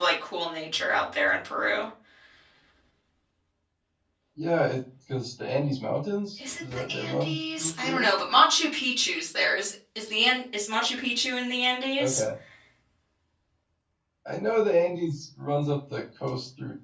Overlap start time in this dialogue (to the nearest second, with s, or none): 6 s